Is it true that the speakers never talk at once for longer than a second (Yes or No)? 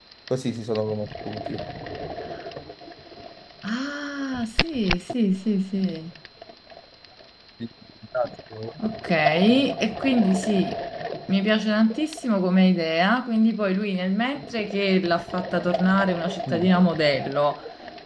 Yes